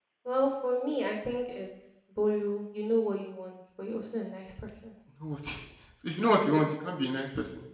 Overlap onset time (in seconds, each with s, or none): none